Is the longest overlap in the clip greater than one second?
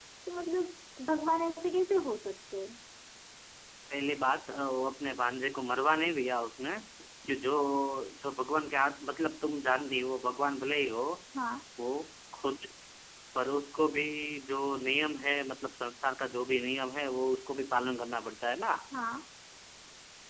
No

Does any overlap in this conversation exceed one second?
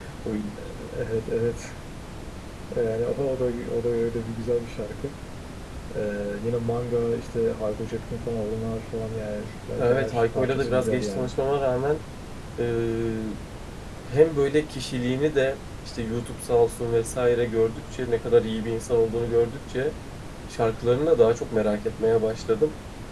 Yes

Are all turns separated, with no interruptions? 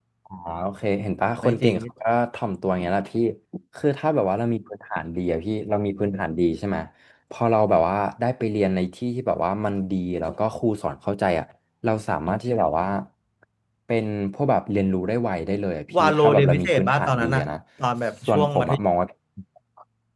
No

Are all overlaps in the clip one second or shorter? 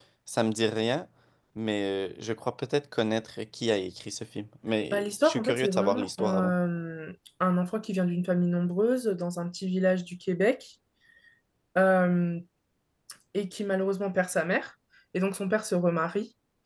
No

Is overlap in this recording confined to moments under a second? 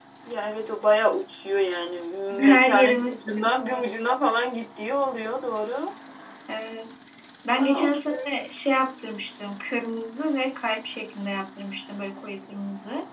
No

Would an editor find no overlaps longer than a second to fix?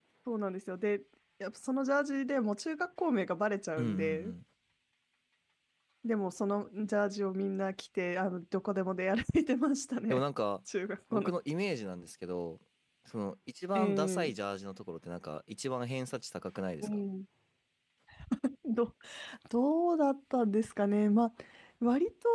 Yes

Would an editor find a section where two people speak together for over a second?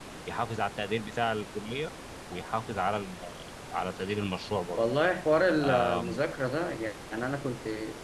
No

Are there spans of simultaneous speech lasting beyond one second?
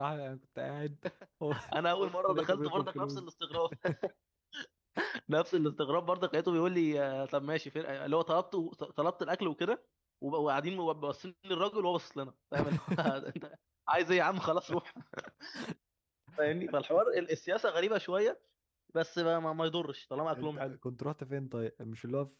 Yes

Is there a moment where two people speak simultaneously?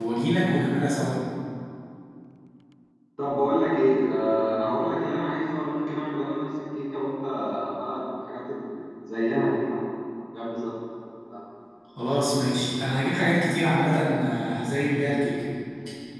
No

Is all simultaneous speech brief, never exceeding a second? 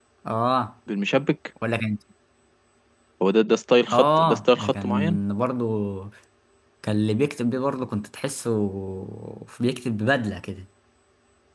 No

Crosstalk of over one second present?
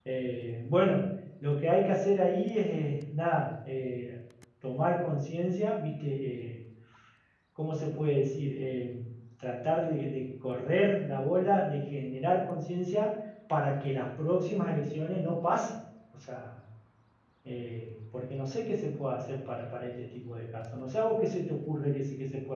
No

